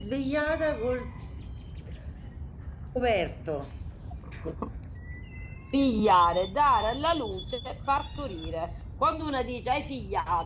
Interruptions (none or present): none